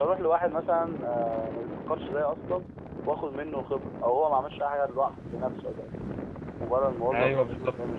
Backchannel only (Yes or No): No